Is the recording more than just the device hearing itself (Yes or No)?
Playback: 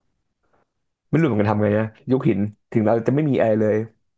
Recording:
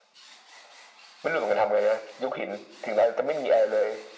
No